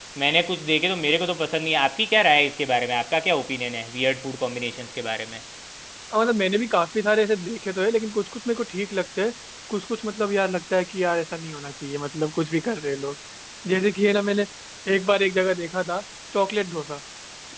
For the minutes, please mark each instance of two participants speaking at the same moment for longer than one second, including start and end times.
none

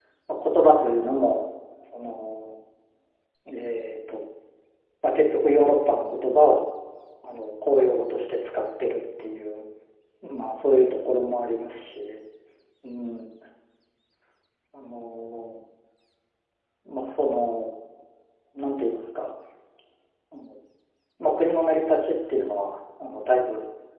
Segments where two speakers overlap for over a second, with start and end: none

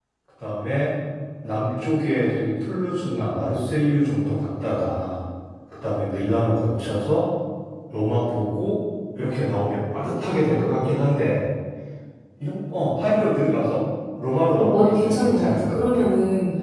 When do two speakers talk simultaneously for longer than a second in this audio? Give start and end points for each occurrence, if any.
14.5-16.1

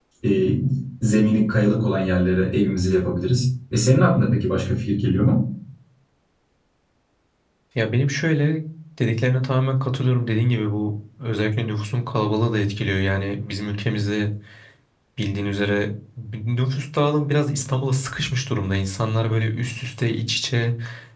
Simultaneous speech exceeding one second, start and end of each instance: none

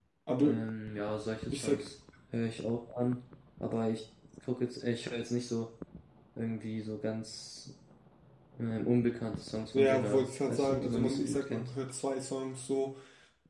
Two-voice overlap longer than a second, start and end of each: 9.7-11.7

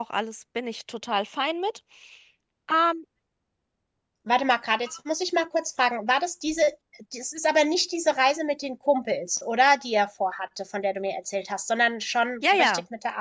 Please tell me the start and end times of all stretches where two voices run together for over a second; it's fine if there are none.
none

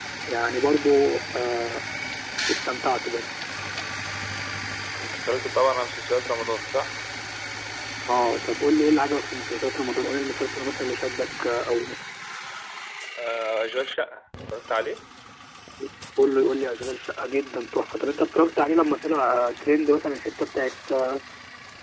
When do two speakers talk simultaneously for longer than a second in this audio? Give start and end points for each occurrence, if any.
none

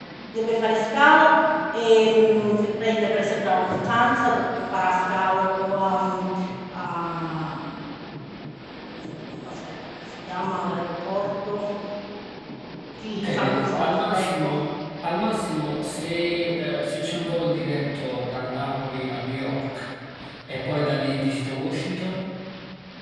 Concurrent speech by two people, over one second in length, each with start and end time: 13.1-14.5

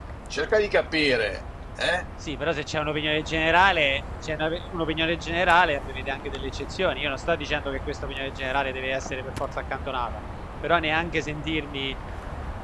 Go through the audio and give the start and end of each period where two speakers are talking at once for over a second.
none

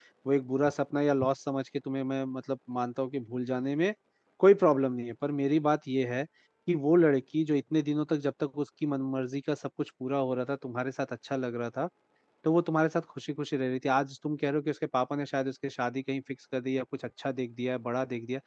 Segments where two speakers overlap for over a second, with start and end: none

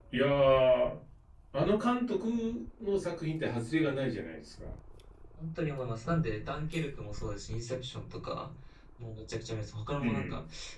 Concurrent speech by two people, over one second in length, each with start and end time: none

